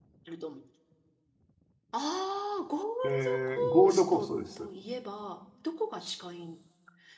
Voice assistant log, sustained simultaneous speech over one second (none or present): present